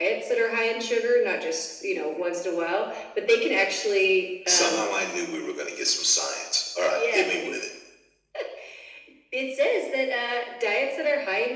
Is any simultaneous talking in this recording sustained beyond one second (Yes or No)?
No